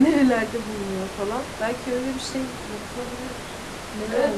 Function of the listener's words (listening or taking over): taking over